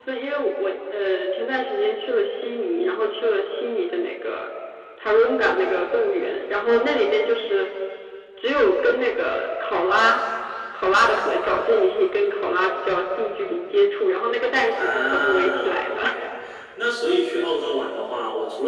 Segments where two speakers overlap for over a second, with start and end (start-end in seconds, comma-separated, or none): 14.8-16.0